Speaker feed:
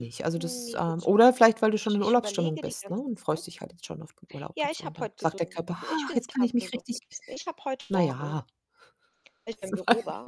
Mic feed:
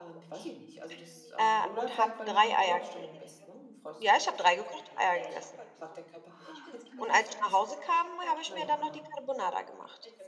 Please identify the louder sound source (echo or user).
user